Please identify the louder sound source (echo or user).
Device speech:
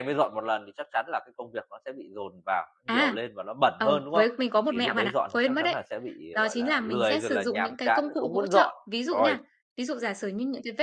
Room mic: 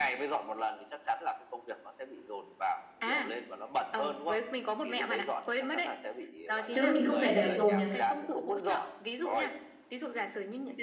user